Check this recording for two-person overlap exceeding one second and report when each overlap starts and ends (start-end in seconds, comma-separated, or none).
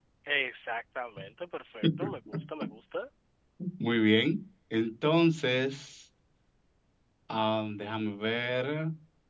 none